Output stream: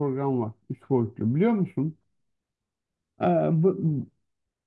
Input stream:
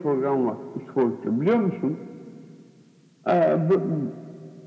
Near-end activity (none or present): none